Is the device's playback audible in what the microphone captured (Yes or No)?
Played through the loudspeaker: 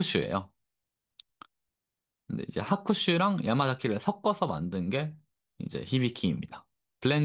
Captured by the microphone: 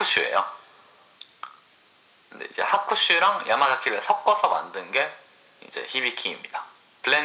Yes